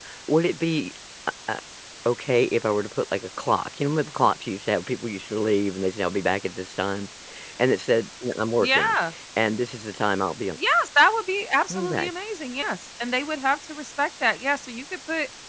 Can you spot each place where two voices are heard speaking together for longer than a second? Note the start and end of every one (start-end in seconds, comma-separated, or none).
none